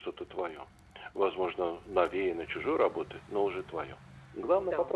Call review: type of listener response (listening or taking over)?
taking over